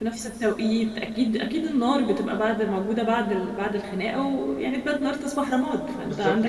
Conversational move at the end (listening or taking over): taking over